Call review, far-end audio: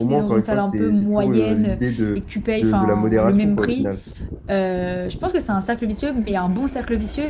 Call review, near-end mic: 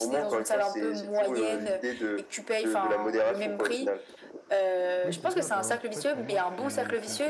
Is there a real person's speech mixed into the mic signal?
Yes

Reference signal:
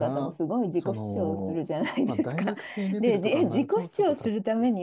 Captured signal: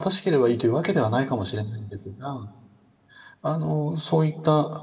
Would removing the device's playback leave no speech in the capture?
No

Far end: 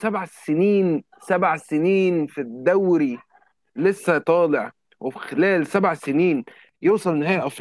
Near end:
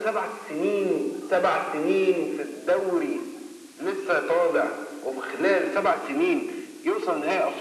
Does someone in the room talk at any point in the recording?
No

